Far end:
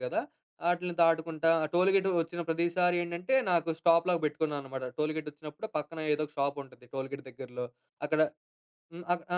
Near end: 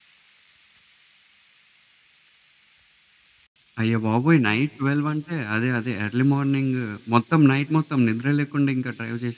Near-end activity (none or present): present